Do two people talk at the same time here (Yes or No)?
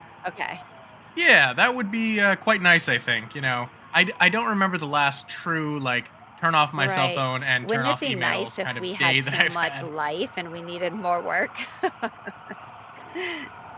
Yes